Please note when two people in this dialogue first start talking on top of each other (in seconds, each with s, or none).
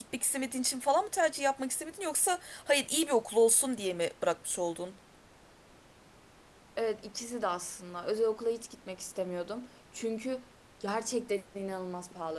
none